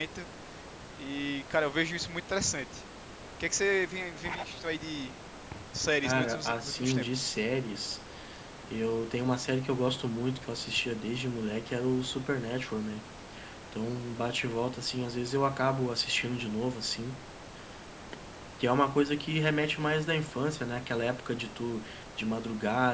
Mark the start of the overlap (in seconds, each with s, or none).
6.0 s